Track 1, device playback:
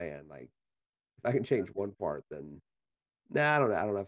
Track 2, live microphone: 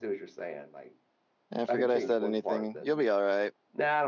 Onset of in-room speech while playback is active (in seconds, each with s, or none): 1.5 s